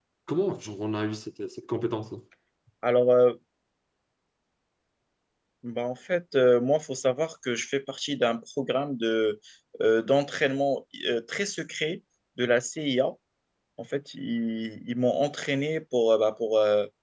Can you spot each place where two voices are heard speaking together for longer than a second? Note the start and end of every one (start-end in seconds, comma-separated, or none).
none